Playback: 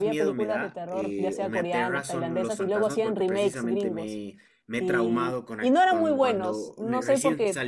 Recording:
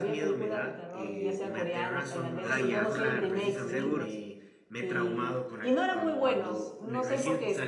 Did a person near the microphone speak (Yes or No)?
Yes